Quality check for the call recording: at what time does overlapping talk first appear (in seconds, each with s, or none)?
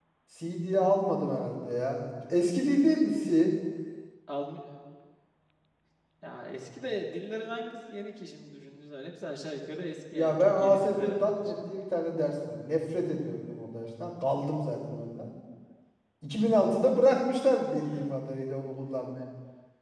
10.1 s